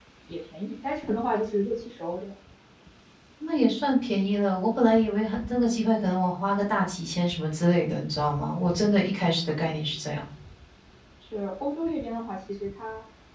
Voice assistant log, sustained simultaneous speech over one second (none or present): none